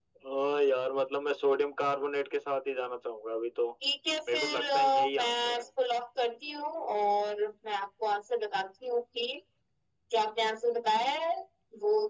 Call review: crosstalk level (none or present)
present